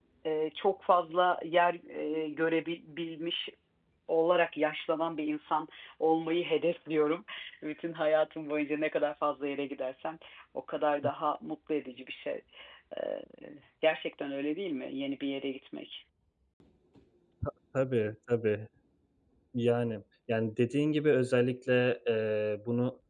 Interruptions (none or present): none